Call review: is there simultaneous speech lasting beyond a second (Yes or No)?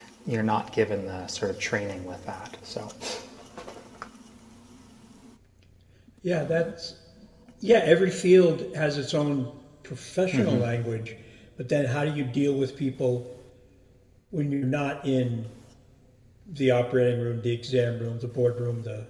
No